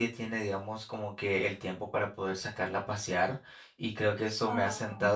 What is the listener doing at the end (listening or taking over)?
listening